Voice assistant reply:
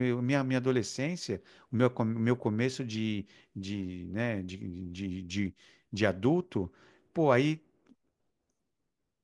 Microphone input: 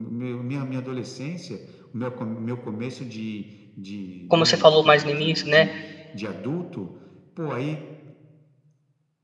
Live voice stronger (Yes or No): Yes